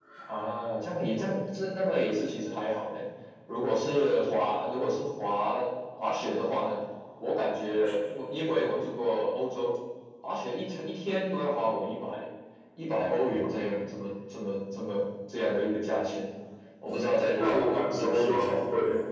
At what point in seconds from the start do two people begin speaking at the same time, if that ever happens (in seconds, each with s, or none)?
17.4 s